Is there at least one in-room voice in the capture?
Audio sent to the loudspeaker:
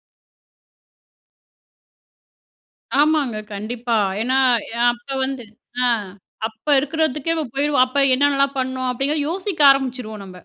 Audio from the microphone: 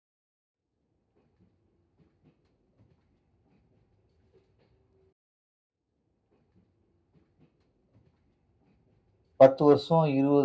Yes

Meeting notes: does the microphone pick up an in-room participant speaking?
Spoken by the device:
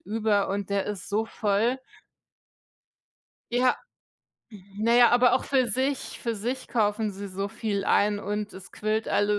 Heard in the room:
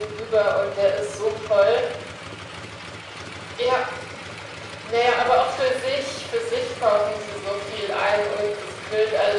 No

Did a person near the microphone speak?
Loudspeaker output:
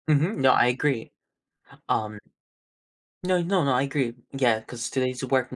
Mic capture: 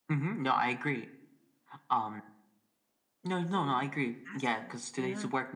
Yes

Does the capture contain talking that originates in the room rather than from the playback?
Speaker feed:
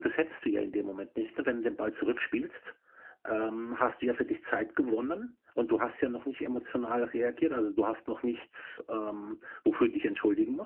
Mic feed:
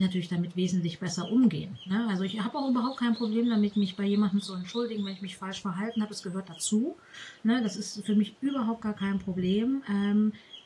Yes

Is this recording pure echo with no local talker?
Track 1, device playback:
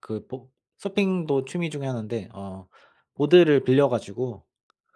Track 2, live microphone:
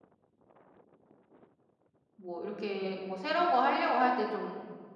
No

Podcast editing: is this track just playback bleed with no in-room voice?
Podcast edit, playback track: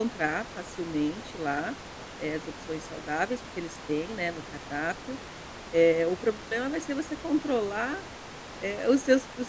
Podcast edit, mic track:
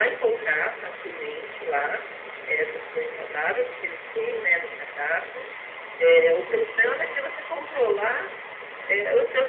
Yes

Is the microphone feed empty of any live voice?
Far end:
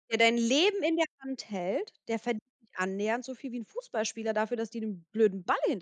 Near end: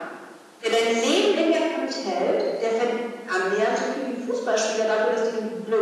Yes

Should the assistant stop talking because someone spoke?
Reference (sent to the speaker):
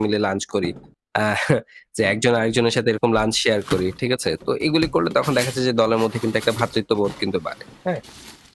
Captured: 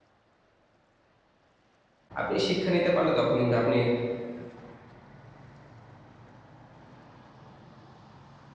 Yes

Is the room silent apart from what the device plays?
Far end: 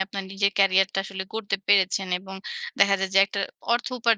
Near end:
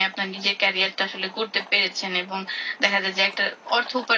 Yes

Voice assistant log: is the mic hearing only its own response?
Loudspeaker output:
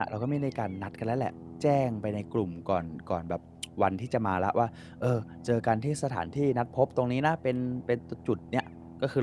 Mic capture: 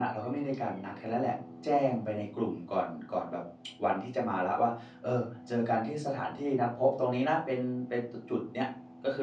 Yes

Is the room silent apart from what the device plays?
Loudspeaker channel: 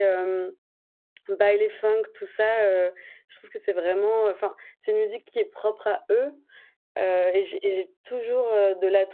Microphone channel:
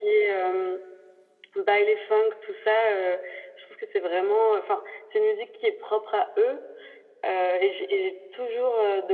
Yes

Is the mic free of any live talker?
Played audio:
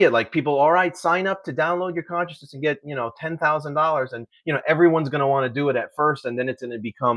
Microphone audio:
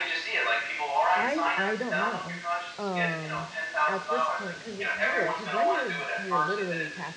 No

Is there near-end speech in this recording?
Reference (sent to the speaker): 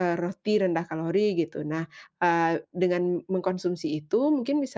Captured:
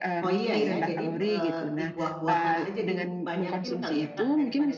Yes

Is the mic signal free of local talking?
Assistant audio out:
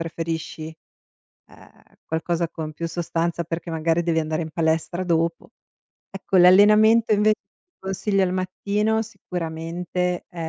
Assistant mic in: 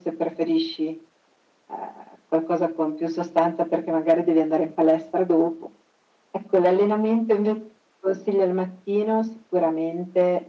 Yes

